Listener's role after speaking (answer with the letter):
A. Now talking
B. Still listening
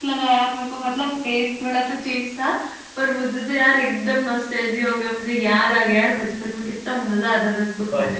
A